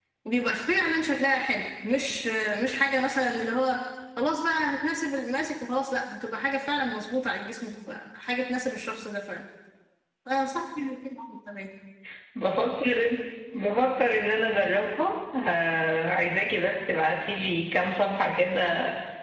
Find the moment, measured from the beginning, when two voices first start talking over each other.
none

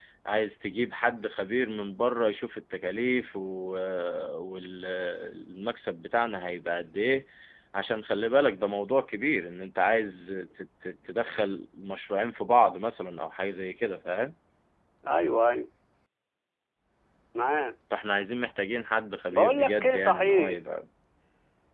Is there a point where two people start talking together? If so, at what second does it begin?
19.3 s

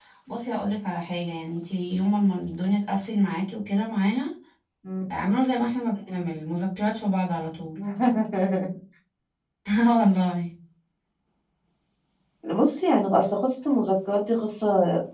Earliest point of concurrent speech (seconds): none

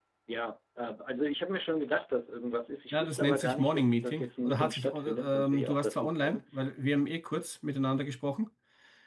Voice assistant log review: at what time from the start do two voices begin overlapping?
2.9 s

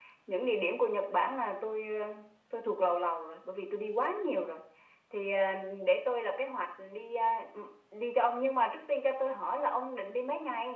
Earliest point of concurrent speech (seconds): none

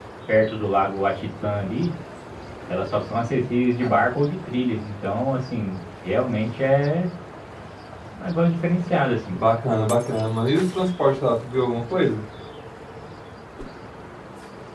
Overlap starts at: none

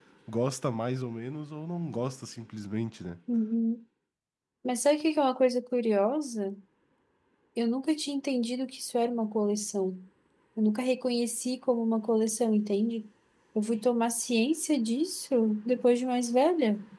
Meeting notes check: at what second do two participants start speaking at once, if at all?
none

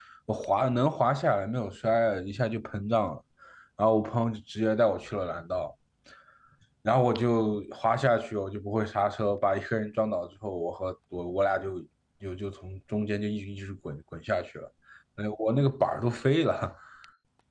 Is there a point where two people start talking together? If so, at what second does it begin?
none

